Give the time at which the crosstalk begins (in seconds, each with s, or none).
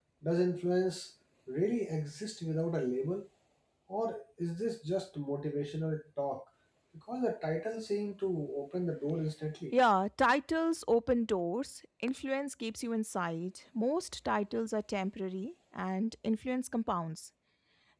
none